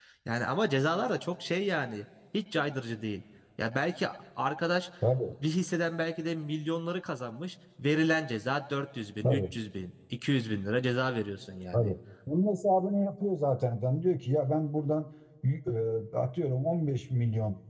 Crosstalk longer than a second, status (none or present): none